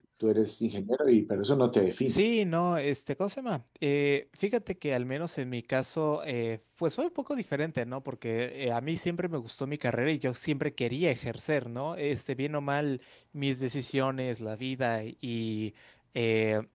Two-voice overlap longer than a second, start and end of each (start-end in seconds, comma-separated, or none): none